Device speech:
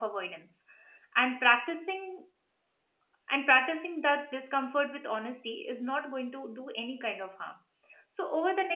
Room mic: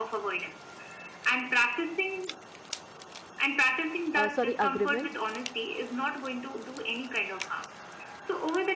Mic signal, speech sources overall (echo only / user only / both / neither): both